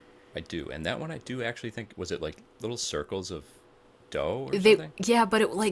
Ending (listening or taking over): taking over